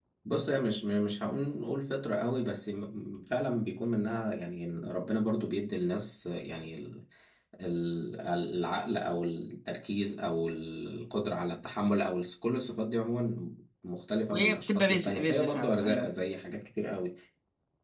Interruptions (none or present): present